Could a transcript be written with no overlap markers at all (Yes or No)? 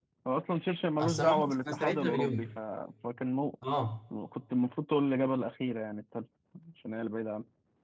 No